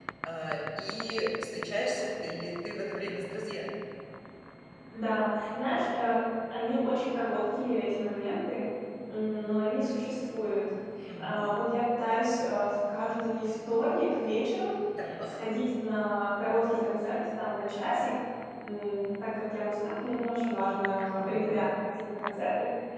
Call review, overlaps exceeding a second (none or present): none